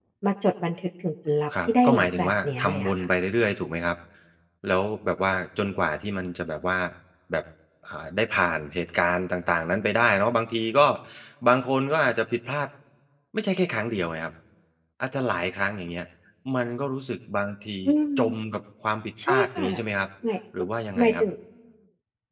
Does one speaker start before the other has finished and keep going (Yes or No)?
Yes